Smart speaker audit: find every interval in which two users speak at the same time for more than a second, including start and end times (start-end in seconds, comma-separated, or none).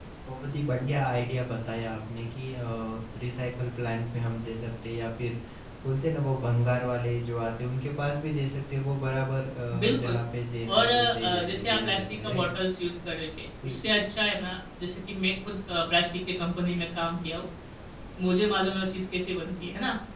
10.7-12.5